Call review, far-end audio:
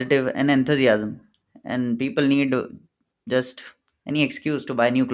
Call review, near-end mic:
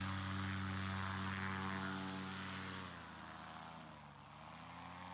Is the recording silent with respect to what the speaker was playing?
Yes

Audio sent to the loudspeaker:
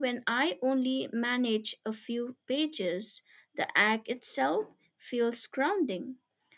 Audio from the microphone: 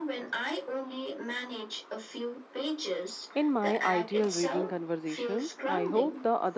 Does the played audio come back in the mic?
Yes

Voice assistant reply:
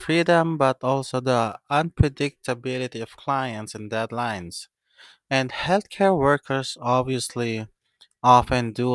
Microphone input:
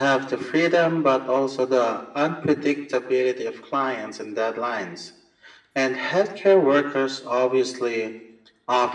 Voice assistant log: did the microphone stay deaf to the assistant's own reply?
No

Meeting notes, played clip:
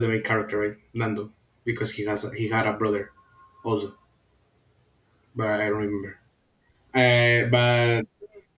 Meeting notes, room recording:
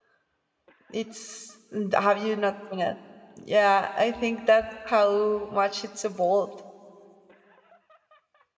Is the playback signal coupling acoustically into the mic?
No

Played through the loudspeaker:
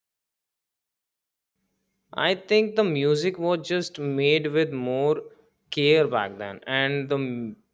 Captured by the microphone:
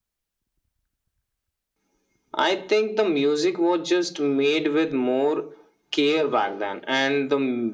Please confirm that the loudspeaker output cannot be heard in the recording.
No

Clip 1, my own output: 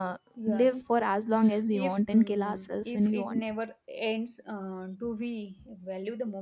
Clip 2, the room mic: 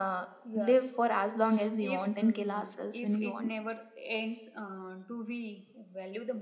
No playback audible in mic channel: No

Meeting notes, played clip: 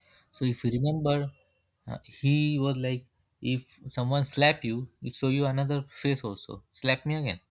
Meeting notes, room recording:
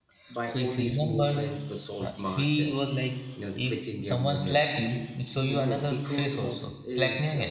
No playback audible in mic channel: No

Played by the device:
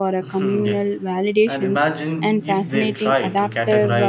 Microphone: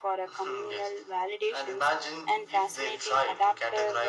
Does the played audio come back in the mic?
Yes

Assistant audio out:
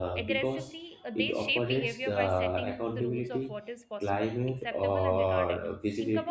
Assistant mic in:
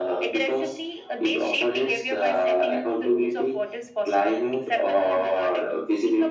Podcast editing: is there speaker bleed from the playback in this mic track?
Yes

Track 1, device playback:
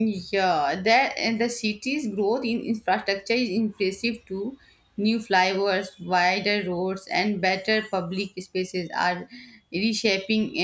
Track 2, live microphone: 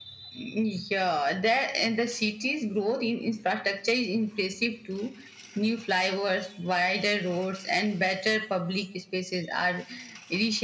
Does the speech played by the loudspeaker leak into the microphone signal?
Yes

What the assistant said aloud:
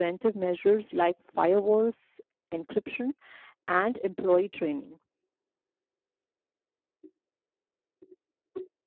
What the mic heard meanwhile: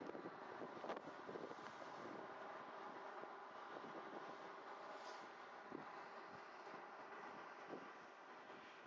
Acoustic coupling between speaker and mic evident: No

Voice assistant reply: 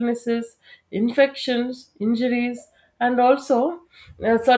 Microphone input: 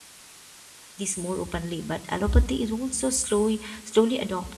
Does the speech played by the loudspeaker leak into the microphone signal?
No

